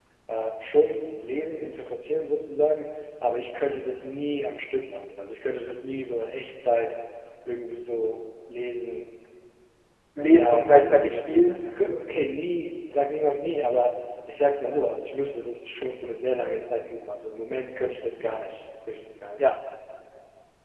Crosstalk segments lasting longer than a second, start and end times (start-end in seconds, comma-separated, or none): 10.2-11.5